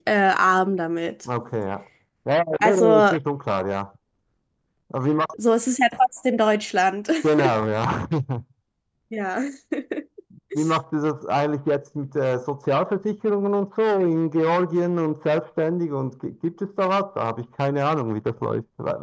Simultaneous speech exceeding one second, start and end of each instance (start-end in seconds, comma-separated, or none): none